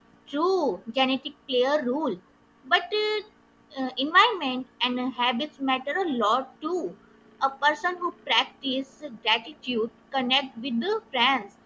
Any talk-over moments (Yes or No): No